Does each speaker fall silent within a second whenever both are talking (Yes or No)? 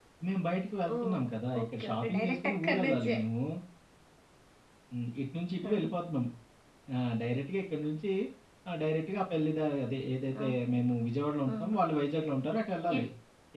No